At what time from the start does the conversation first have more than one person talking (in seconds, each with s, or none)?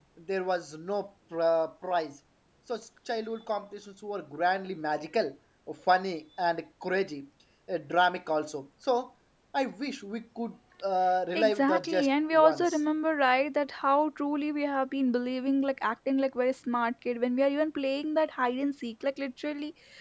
11.3 s